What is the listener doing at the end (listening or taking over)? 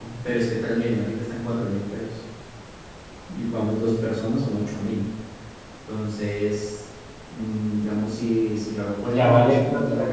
taking over